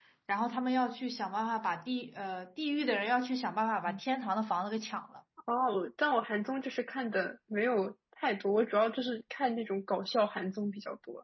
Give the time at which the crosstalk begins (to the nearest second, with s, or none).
none